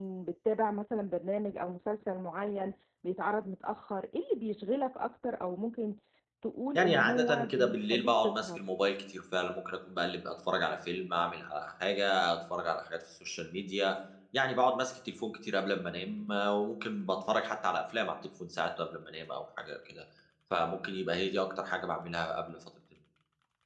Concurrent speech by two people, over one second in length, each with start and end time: 6.8-8.6

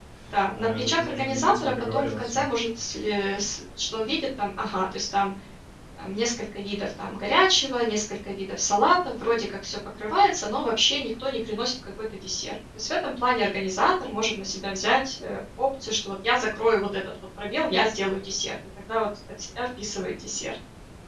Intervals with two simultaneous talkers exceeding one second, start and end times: 0.6-2.4

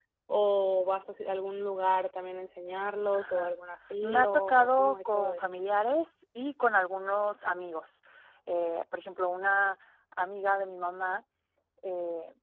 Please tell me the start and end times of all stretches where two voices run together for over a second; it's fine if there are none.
4.0-5.4

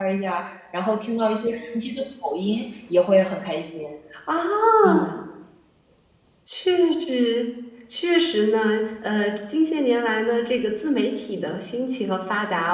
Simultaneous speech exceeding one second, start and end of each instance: none

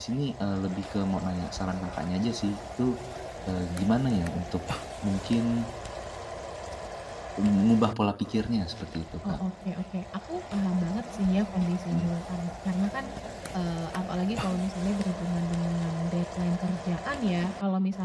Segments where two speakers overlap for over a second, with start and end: none

